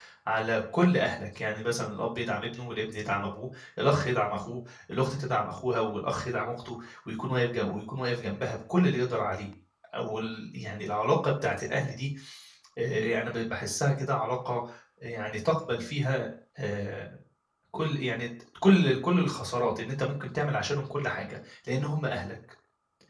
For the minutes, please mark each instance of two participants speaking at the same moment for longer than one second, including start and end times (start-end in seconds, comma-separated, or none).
none